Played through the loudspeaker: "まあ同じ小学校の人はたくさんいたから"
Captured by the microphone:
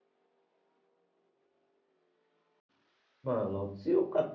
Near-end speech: present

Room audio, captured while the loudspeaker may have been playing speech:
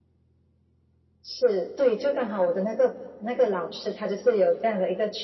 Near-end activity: none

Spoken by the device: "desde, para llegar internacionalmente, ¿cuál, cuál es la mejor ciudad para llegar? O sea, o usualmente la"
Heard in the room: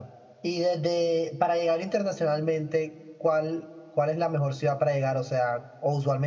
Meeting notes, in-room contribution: none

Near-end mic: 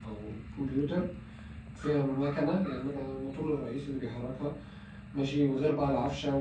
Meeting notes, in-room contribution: present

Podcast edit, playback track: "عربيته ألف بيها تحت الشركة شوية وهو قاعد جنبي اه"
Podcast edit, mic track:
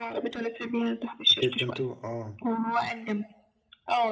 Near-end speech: present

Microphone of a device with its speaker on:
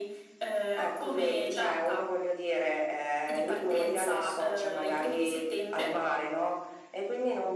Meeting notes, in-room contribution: none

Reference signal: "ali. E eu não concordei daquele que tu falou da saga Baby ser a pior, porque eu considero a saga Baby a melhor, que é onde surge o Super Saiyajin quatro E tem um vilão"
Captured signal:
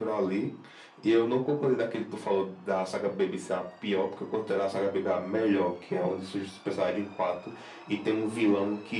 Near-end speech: none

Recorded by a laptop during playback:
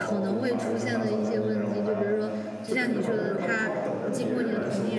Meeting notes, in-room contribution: present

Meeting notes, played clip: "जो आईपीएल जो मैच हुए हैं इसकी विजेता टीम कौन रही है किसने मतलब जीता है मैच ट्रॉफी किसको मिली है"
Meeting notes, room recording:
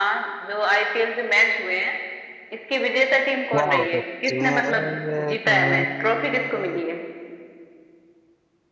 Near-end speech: present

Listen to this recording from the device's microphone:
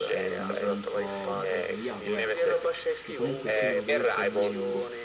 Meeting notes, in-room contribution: present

